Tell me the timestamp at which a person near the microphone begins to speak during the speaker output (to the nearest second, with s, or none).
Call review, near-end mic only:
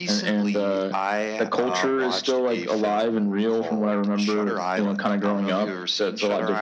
none